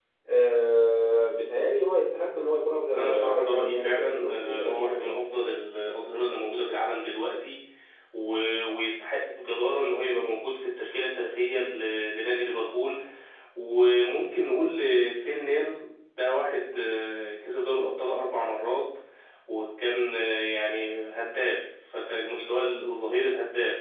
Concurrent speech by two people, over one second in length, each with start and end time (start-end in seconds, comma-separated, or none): 3.0-5.2